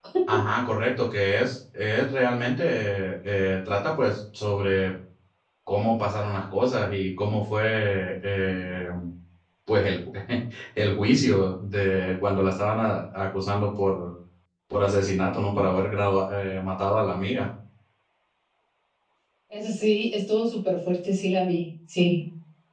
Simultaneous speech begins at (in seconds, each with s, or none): none